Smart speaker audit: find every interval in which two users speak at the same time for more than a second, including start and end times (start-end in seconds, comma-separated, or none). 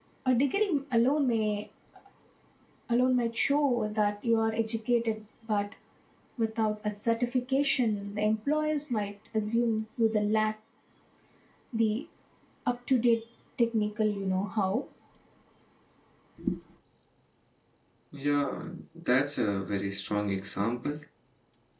none